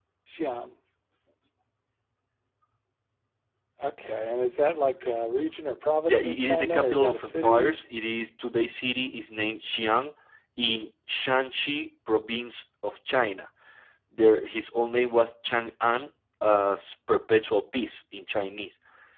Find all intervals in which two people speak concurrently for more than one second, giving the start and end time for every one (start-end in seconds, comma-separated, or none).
6.0-7.8